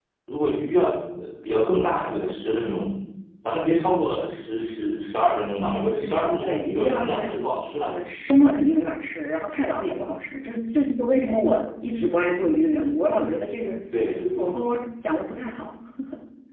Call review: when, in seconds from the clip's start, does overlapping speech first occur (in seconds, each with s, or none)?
6.0 s